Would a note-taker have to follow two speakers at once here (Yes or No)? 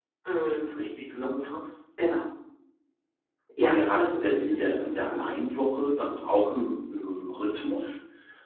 Yes